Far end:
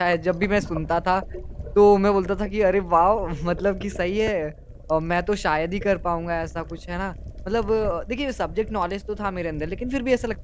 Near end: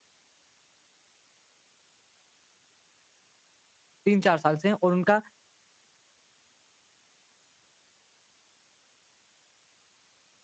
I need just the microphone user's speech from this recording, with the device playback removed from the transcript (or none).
3-4 साल से हैं और उनका